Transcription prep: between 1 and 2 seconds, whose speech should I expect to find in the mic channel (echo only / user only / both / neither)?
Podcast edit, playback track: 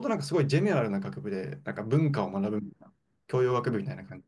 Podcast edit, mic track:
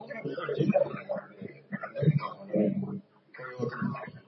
echo only